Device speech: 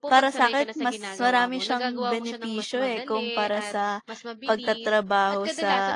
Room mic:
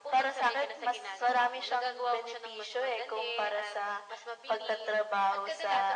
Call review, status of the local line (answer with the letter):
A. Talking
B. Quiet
B